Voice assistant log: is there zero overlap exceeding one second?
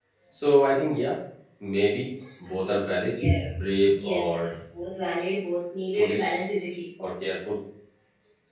No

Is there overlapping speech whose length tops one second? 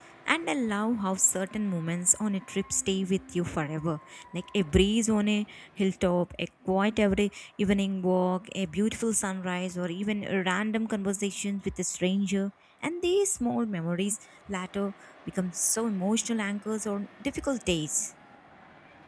No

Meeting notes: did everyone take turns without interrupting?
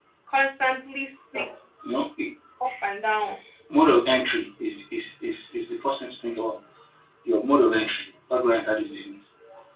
Yes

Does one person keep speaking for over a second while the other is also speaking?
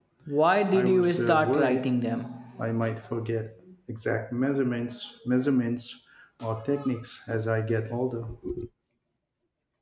Yes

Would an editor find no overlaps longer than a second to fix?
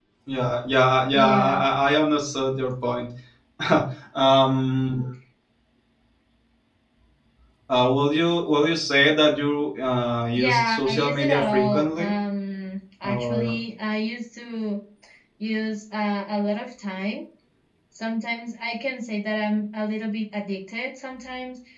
No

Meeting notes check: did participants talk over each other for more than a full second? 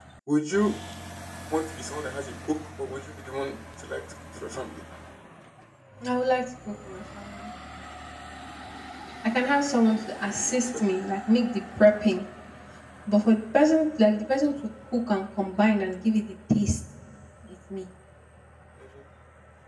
No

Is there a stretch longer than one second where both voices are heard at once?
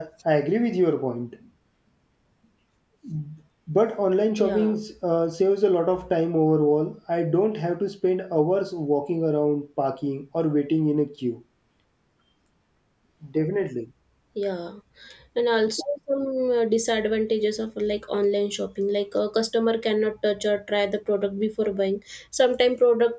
No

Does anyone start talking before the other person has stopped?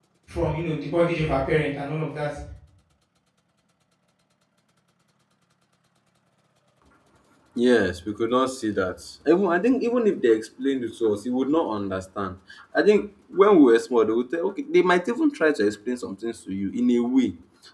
No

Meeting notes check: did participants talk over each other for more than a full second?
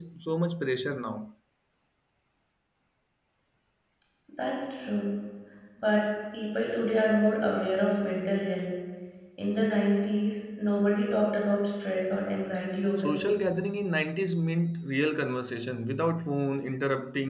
No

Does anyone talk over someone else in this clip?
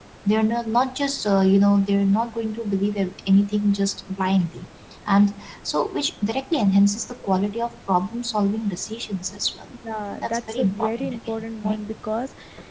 Yes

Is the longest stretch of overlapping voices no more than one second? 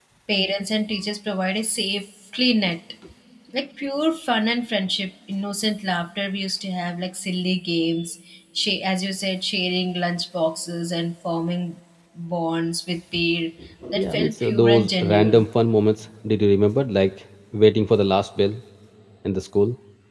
No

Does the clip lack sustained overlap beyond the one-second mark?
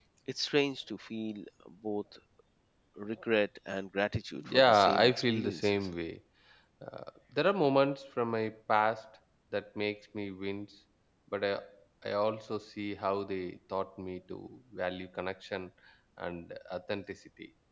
No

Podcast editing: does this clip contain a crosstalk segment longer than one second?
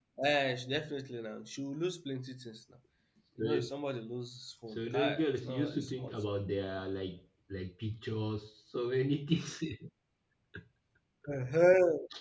Yes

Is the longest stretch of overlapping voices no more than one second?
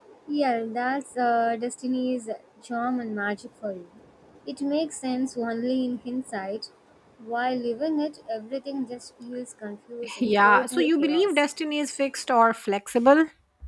No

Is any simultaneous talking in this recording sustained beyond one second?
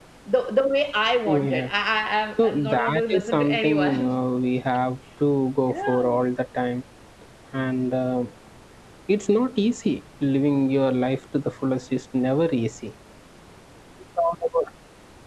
Yes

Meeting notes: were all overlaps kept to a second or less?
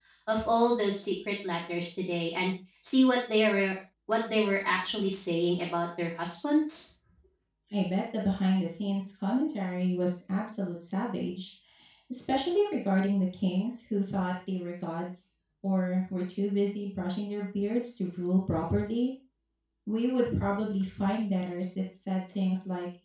Yes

